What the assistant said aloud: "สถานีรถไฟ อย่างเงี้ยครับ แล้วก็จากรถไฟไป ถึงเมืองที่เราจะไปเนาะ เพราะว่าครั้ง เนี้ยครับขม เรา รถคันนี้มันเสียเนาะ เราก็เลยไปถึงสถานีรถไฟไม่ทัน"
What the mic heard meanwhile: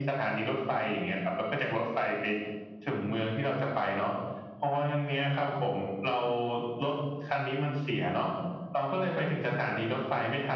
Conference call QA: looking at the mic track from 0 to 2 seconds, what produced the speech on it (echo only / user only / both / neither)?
echo only